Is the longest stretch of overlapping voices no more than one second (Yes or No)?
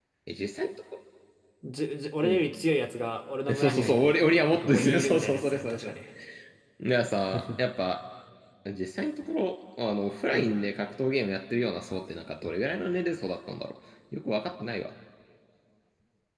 No